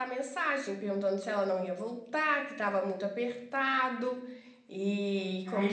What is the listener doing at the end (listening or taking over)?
taking over